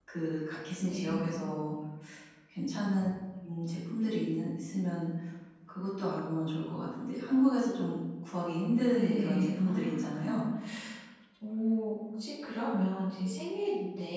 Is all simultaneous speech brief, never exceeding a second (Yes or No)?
No